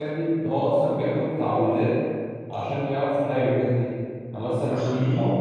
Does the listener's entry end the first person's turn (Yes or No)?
No